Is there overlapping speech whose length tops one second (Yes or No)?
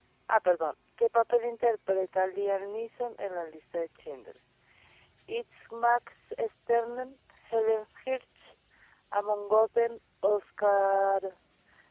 No